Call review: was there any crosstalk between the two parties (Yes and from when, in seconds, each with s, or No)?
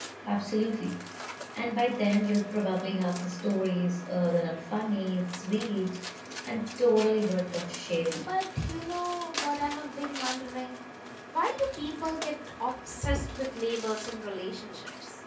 No